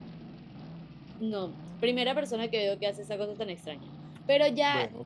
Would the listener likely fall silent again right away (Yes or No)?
Yes